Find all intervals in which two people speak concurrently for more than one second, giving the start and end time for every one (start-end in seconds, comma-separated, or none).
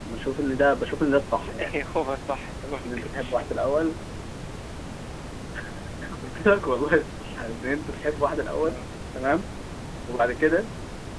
none